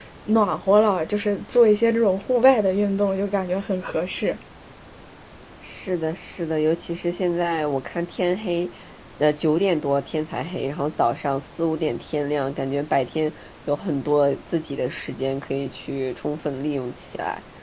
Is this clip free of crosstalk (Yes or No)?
Yes